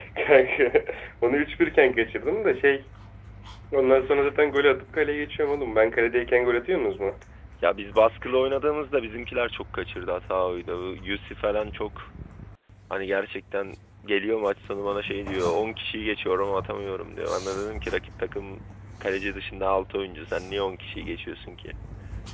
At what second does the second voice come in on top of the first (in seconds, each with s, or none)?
none